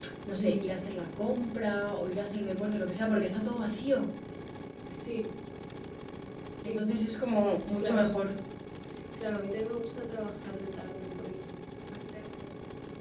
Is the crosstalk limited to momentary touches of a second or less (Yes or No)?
Yes